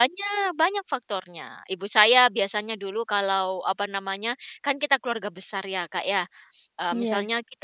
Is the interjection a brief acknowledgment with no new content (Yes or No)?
Yes